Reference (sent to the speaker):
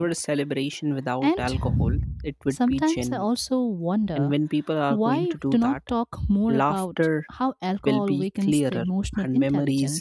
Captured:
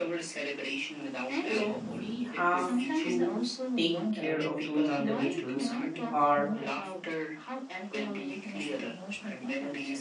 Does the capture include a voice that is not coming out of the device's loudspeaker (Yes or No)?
Yes